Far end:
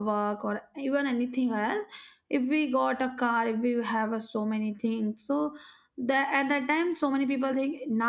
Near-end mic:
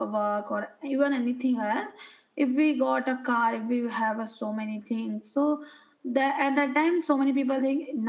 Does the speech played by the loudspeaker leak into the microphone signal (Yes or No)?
Yes